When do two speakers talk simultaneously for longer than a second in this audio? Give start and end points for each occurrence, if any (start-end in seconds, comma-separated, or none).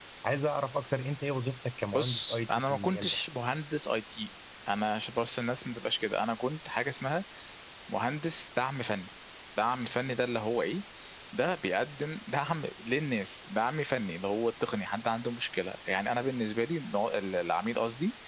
1.9-3.1